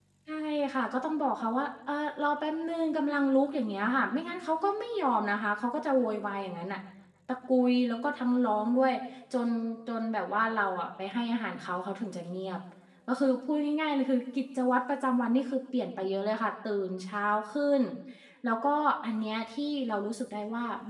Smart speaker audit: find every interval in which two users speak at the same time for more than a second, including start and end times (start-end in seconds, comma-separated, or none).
none